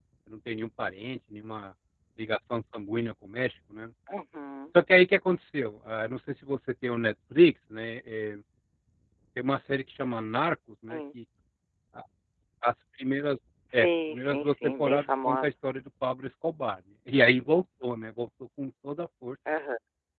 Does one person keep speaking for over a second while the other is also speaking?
Yes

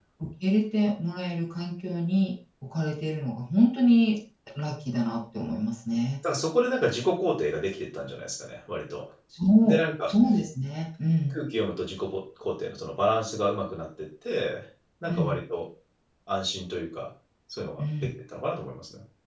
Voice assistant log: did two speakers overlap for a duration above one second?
No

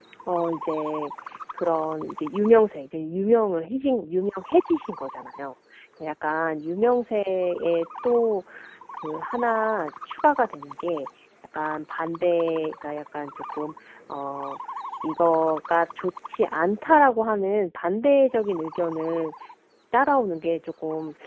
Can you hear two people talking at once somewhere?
No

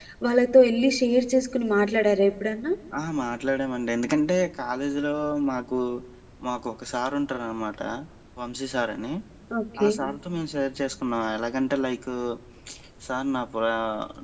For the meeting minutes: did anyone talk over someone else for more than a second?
No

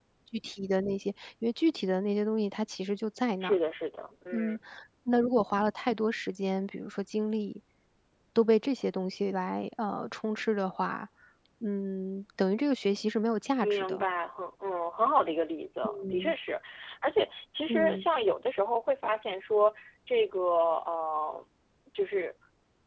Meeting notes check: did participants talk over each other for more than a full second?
No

